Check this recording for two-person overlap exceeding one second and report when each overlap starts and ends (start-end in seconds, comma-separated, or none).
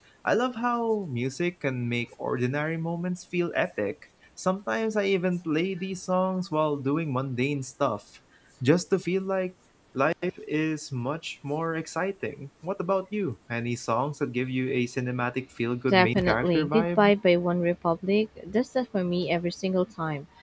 15.9-17.1